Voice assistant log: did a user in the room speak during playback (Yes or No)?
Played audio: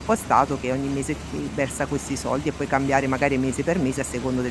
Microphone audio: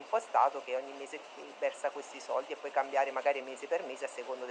No